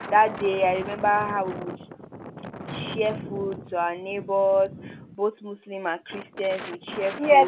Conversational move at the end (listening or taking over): taking over